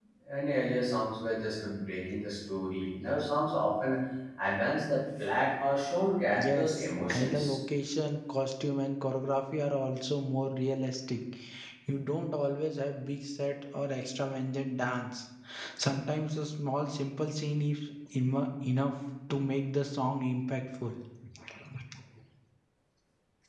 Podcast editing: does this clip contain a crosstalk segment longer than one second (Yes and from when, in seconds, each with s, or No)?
Yes, from 6.3 s